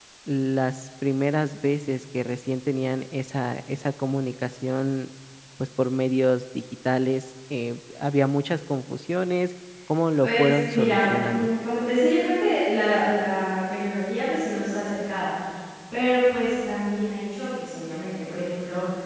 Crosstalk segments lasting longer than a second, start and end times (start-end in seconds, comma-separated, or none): 10.2-11.5